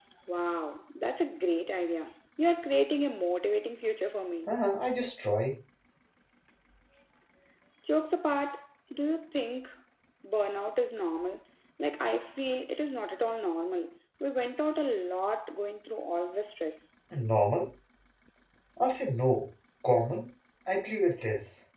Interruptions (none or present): none